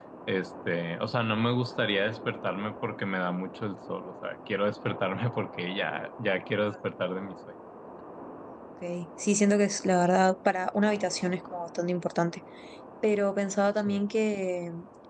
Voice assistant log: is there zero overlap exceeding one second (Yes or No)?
Yes